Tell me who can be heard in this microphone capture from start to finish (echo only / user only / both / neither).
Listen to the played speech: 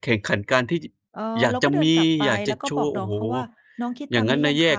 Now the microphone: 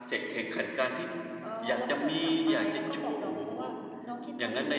echo only